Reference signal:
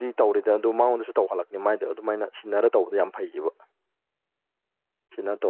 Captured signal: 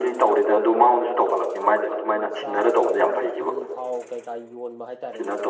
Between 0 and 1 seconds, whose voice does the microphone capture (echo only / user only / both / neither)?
echo only